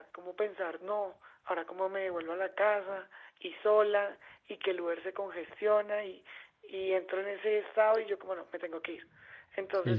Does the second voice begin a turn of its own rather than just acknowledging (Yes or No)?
Yes